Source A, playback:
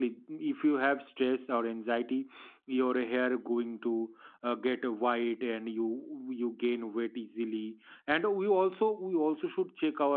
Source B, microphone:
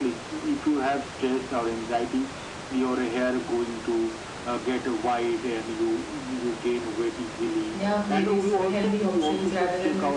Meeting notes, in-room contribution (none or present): present